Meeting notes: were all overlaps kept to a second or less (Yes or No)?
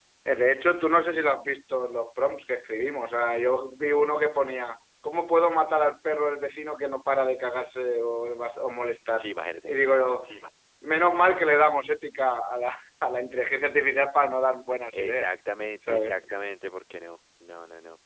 Yes